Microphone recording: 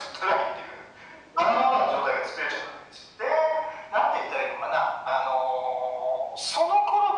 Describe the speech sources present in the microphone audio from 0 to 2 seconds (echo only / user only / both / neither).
echo only